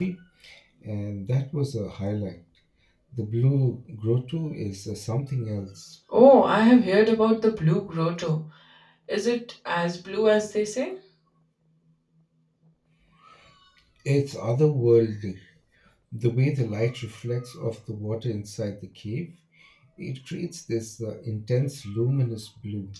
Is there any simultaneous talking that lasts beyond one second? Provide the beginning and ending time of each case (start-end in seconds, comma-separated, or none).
none